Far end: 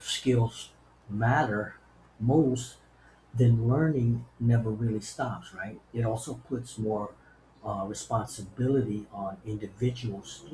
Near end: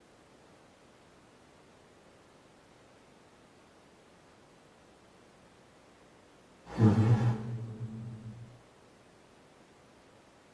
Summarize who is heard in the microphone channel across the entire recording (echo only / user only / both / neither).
user only